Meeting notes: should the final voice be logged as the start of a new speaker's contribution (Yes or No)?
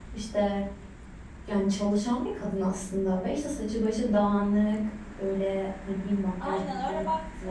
Yes